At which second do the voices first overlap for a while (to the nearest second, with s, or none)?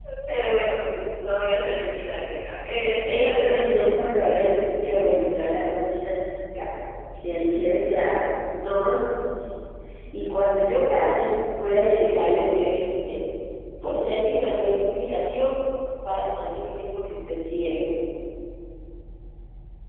3 s